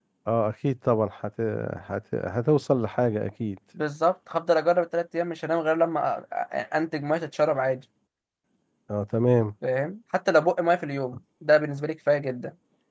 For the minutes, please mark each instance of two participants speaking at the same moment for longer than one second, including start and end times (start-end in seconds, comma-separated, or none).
none